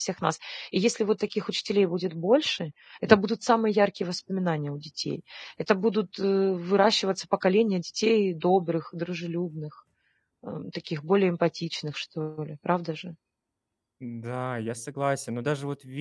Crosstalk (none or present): none